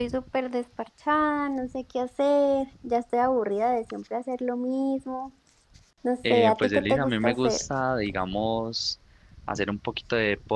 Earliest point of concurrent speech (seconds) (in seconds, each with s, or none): 6.3 s